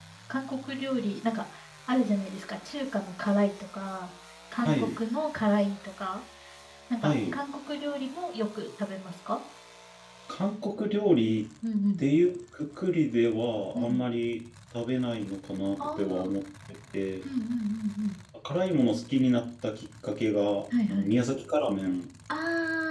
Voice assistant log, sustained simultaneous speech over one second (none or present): none